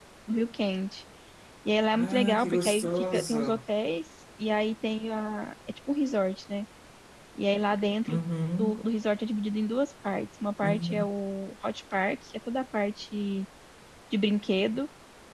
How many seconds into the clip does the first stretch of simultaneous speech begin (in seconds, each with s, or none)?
2.0 s